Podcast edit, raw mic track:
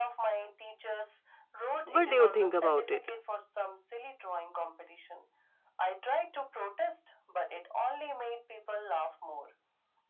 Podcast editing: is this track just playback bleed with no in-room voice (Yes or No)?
No